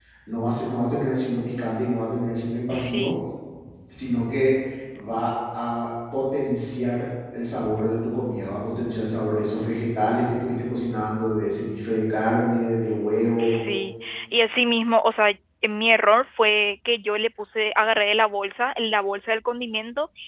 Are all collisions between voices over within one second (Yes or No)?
Yes